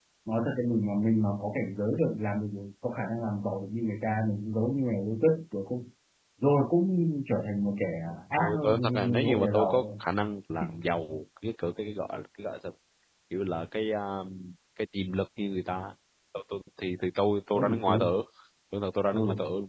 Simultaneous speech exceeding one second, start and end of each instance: 8.3-10.0

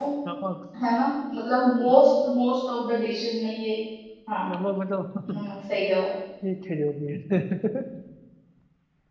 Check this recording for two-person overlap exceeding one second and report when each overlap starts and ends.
none

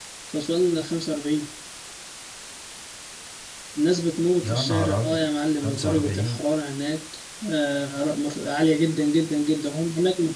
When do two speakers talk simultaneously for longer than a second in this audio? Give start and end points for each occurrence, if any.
4.4-6.4

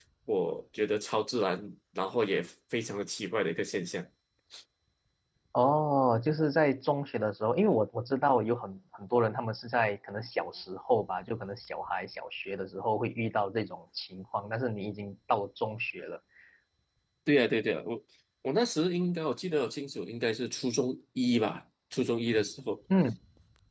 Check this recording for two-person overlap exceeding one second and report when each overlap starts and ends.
none

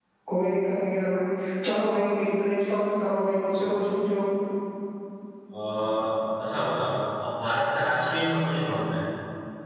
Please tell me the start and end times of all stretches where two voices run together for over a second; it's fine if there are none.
none

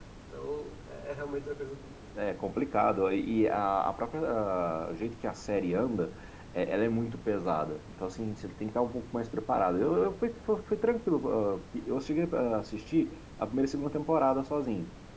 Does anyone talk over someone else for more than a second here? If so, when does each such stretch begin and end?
none

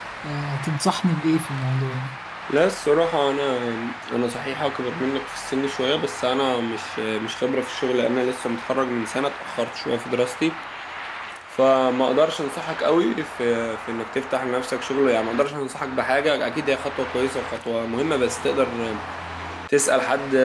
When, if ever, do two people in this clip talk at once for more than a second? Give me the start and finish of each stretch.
none

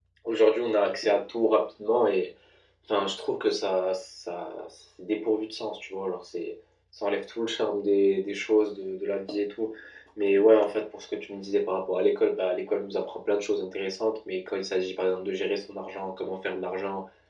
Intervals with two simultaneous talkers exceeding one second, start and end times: none

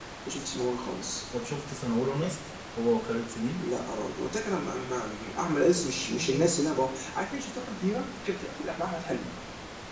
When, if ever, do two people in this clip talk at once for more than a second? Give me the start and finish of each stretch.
none

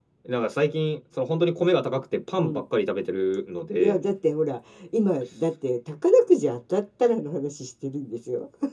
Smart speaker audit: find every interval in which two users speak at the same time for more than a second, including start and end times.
none

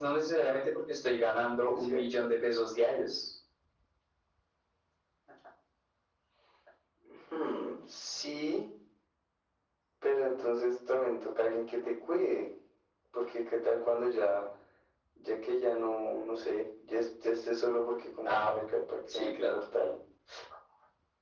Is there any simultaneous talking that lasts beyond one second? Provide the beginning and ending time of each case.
none

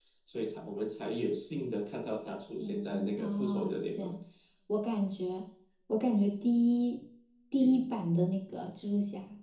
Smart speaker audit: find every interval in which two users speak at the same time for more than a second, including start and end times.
2.6-4.1

